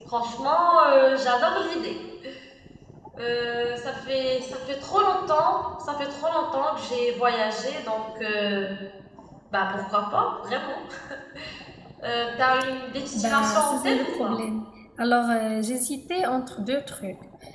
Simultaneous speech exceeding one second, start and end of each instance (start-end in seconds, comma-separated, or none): 13.1-14.4